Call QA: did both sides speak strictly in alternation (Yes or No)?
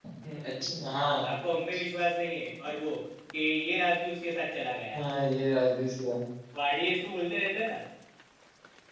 Yes